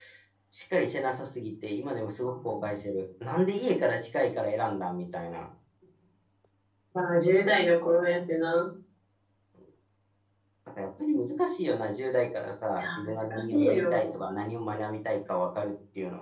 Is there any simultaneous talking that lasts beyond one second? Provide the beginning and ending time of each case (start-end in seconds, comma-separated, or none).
12.8-14.2